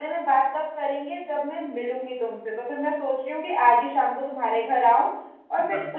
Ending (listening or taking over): listening